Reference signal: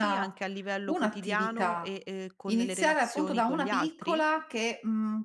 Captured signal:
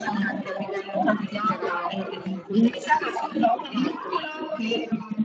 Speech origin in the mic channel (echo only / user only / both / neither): both